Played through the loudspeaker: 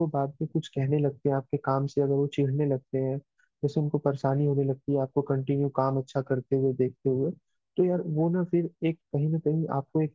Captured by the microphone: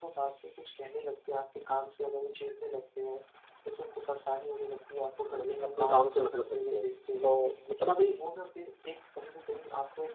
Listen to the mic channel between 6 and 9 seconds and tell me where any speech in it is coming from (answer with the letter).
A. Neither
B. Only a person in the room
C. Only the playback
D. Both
D